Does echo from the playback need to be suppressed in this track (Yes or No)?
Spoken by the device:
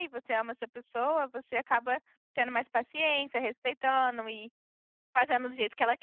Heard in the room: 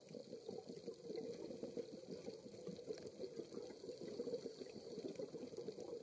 No